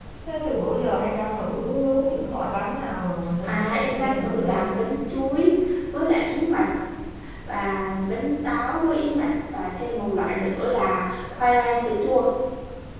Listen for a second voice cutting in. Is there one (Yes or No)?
Yes